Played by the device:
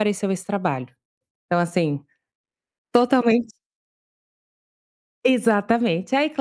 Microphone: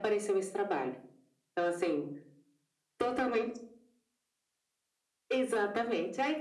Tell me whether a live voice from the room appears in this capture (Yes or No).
No